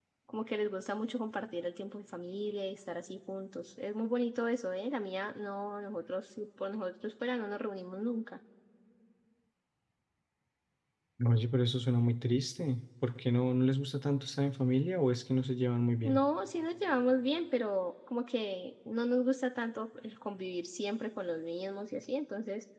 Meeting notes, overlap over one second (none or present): none